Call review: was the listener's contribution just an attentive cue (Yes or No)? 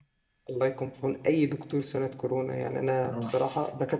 Yes